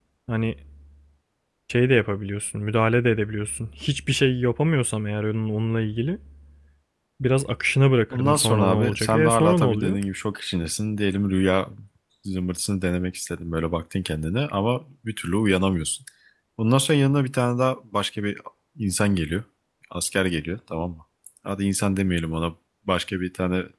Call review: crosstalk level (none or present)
present